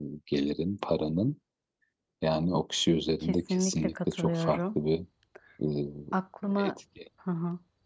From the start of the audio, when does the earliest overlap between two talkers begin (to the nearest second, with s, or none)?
3 s